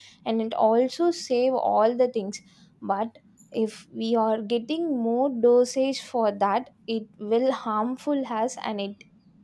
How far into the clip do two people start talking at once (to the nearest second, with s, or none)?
none